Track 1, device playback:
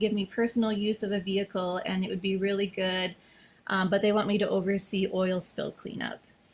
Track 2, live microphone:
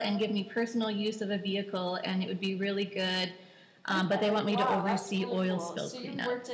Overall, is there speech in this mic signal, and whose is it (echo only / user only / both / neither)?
both